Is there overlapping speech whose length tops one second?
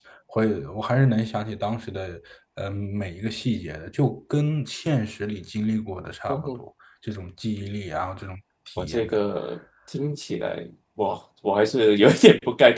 No

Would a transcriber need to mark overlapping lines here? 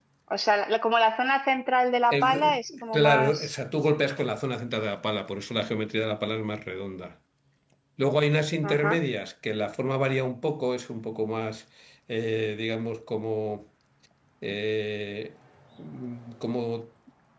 Yes, from 2.1 s

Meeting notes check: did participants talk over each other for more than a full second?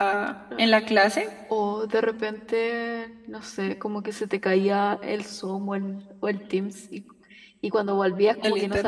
No

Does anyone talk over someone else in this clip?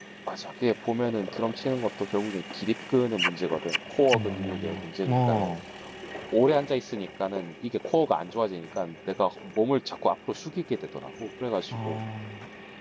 Yes, from 4.1 s

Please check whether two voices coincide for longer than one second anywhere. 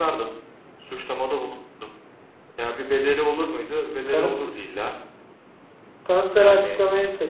No

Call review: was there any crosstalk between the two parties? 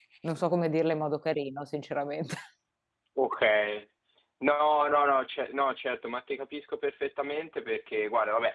No

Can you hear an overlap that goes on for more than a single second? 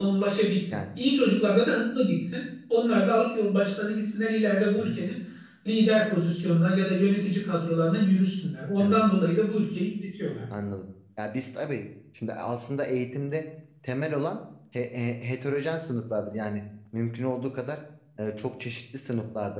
No

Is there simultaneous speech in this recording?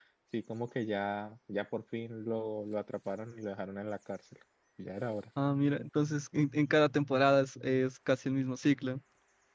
No

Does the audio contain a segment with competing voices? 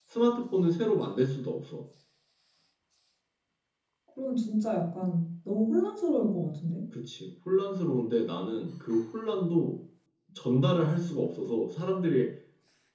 No

